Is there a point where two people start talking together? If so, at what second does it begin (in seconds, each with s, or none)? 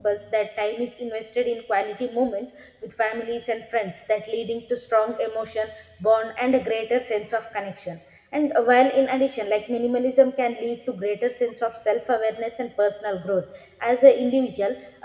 none